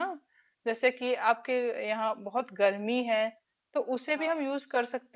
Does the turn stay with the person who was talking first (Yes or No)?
Yes